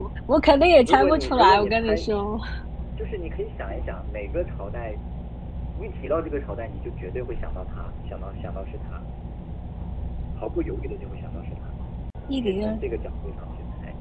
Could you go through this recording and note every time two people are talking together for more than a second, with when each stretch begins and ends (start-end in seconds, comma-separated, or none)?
0.8-2.0